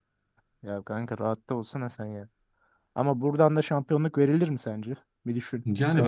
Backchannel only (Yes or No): No